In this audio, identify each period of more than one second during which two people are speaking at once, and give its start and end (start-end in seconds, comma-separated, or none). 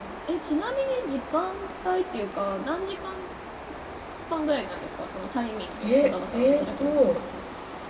5.8-7.2